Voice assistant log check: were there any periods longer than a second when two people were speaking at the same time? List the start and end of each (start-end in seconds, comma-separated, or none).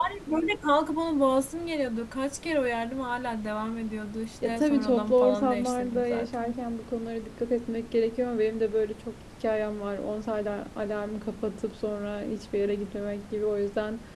4.4-6.6